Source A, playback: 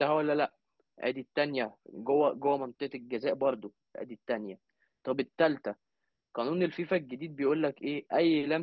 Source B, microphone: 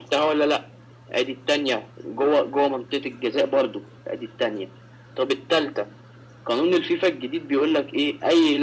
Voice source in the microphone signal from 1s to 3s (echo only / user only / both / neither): echo only